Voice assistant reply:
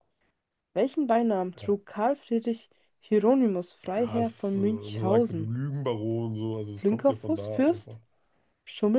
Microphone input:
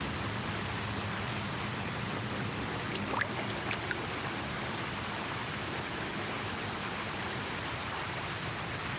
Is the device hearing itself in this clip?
No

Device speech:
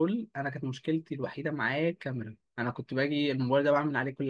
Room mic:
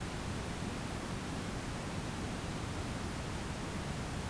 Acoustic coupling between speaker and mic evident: No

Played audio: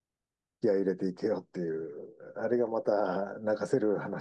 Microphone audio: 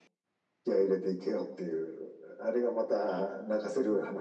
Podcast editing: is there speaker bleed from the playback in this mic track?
Yes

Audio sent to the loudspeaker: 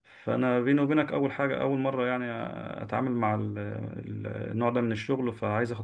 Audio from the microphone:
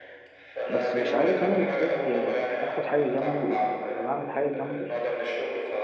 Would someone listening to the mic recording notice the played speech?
Yes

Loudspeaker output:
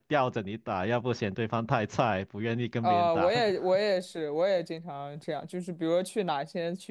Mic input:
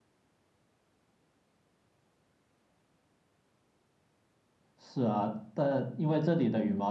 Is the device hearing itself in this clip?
No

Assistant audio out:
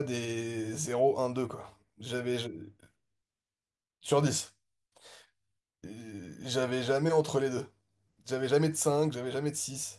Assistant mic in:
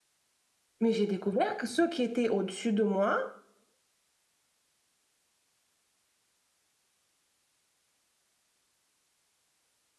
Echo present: No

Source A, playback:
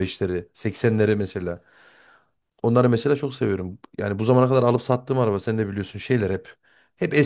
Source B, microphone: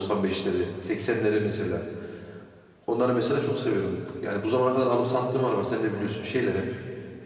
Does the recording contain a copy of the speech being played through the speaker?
Yes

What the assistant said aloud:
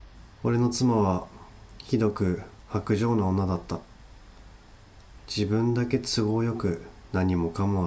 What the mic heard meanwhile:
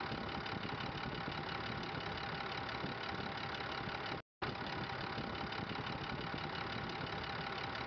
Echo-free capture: Yes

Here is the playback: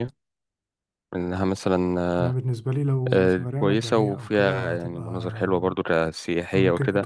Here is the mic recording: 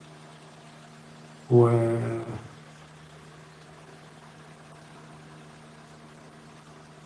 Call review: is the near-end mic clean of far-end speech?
Yes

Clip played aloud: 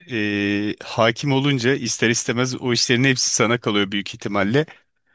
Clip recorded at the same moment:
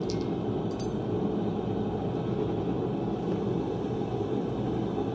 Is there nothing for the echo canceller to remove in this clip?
Yes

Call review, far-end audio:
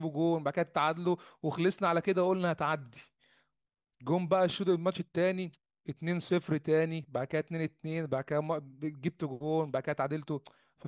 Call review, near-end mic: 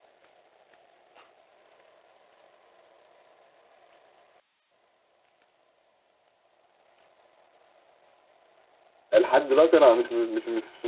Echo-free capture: Yes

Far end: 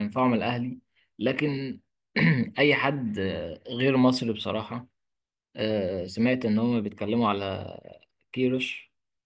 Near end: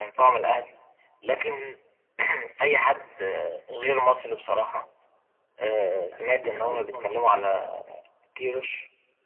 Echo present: Yes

